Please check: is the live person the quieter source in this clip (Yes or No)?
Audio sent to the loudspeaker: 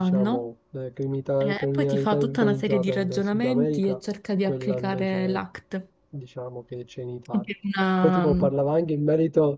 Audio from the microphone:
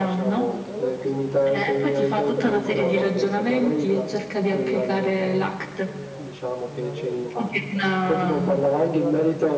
Yes